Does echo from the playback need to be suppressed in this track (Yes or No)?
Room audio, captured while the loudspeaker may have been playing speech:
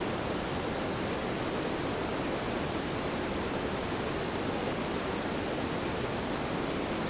No